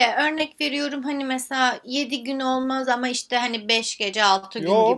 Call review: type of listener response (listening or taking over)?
taking over